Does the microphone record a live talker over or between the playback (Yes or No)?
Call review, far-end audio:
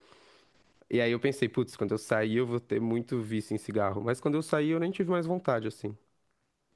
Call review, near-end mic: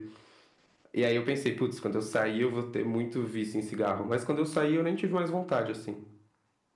No